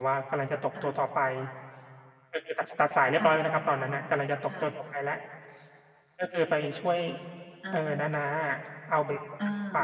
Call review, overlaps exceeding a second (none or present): none